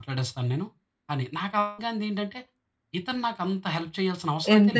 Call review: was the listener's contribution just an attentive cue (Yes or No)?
No